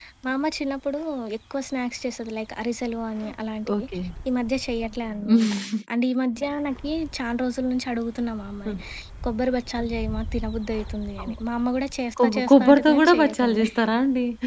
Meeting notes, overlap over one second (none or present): present